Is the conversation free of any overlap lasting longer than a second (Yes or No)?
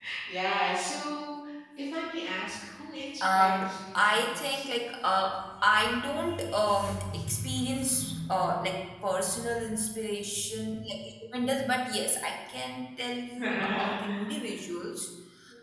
No